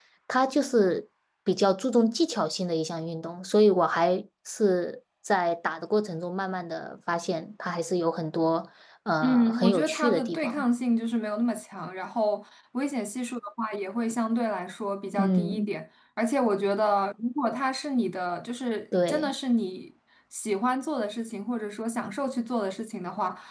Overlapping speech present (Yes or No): Yes